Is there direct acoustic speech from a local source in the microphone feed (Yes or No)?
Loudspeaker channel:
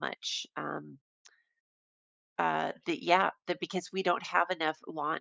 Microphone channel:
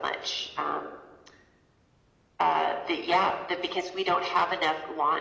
No